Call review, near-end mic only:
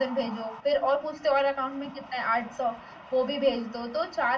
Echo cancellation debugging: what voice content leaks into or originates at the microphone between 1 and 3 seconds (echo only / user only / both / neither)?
echo only